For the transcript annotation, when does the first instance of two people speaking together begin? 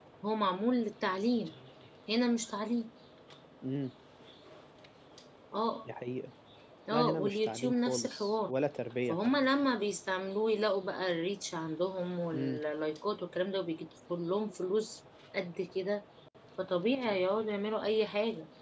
6.9 s

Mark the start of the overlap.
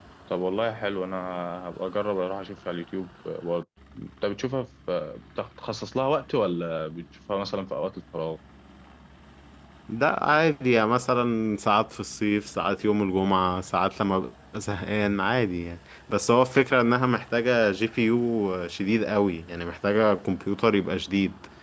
none

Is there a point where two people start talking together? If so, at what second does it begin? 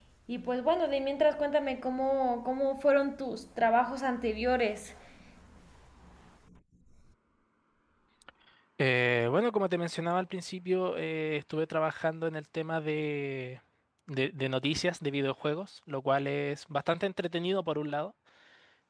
none

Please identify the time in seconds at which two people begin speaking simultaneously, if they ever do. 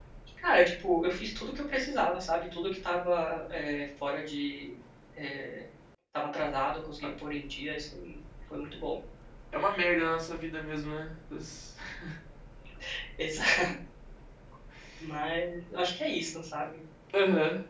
none

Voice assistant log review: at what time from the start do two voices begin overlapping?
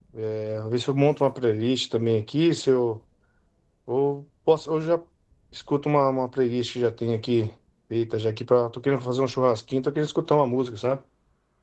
none

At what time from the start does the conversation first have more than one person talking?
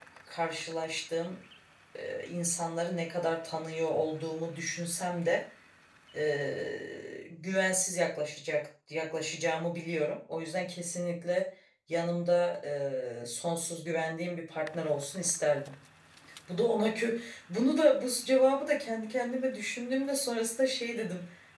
none

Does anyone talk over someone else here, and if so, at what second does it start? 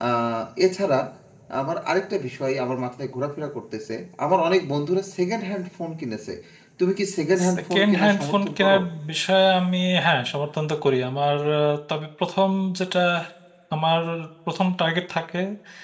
7.5 s

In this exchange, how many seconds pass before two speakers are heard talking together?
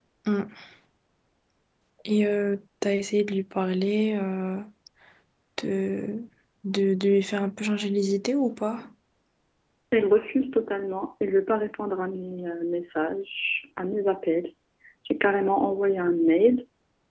none

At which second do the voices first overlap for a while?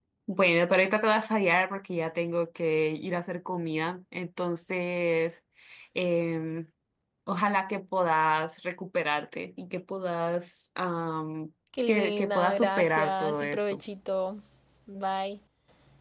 11.7 s

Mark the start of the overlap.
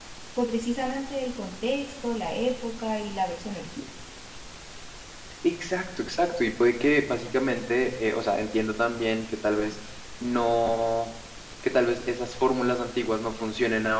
none

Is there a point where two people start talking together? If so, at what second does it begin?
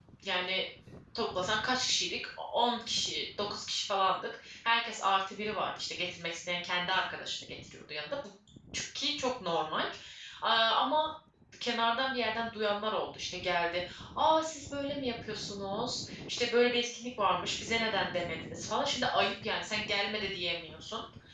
none

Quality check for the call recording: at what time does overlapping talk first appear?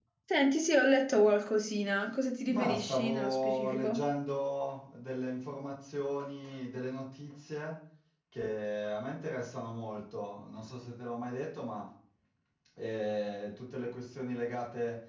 2.5 s

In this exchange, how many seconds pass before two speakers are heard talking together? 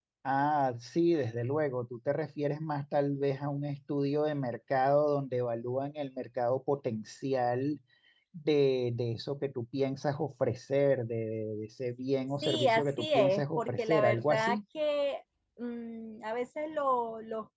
12.4 s

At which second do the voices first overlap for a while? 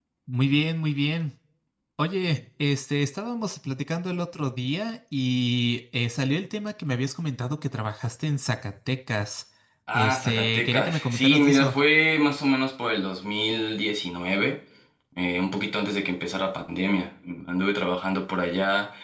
9.9 s

